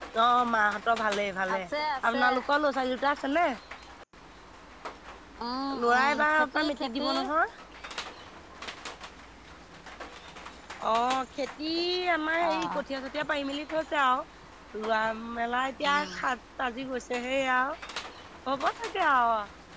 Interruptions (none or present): present